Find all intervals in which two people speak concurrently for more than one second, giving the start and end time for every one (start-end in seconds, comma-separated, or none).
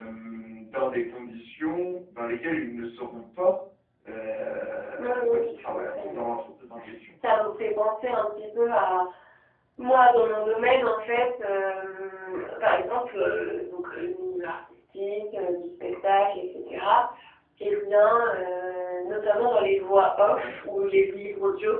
5.0-6.2